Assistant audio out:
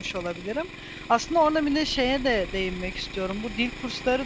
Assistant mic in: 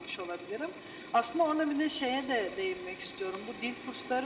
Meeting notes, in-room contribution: none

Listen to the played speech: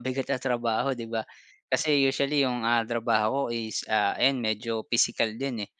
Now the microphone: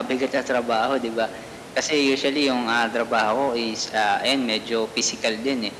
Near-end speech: none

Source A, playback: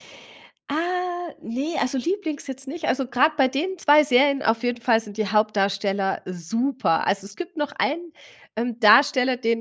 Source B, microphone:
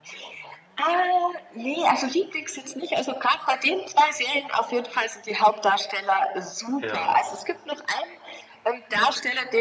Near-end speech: present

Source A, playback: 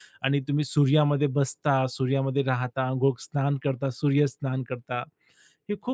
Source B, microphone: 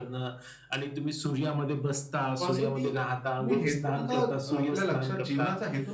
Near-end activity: present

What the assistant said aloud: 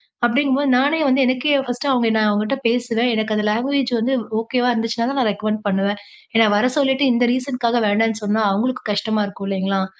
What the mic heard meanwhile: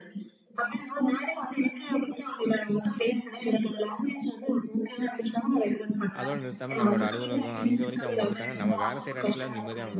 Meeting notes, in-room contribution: present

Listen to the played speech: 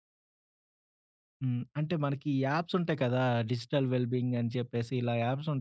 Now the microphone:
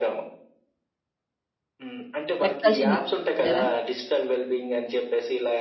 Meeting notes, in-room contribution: present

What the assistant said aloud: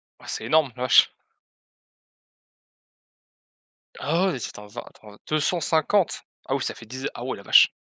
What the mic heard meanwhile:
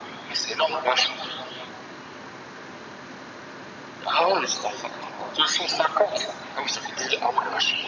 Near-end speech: none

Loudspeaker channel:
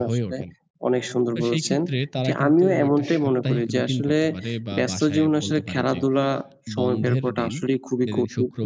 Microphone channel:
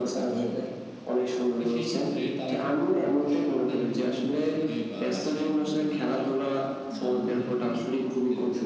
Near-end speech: none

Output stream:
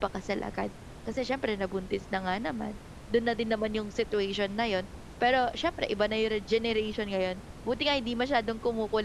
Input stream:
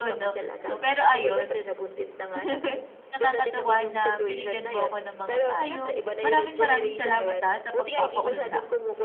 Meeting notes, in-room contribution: present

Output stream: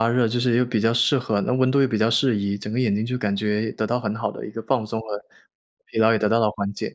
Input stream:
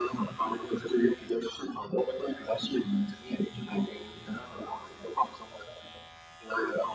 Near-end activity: none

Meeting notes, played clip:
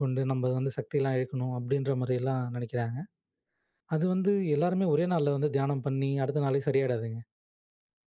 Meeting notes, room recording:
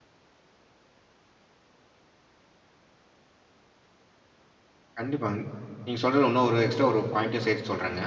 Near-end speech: present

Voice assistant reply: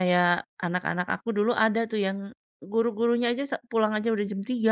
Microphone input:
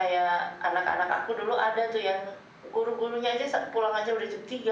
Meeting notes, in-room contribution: none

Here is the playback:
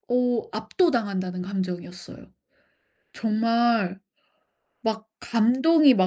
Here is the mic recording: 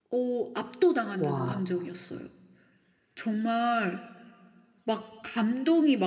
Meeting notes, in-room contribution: present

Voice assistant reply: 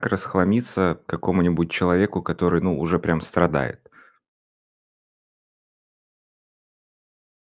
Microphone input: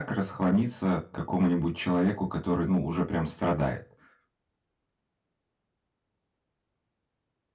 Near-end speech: none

